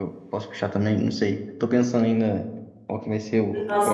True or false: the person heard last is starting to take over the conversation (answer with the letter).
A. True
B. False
A